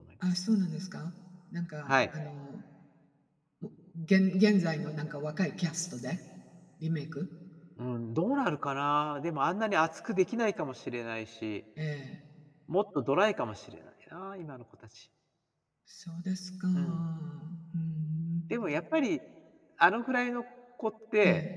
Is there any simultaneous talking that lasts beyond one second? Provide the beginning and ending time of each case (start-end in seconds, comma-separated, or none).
none